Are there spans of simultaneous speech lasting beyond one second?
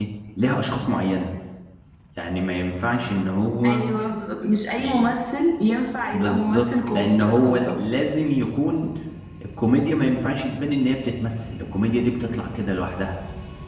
Yes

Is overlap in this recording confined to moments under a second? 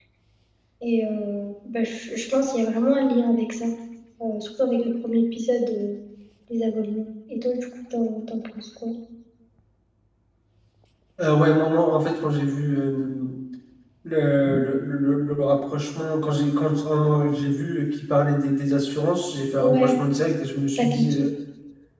Yes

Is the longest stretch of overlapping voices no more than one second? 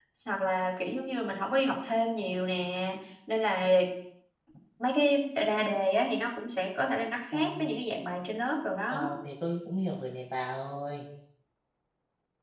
Yes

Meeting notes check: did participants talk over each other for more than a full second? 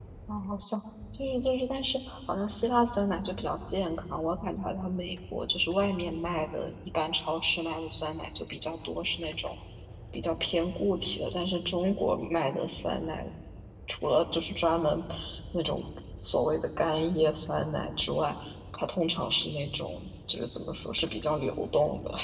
No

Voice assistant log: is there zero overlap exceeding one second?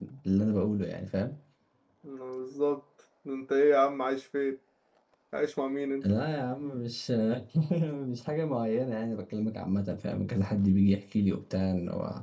Yes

